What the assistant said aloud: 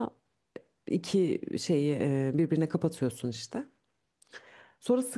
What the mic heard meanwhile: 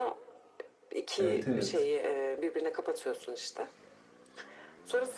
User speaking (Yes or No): Yes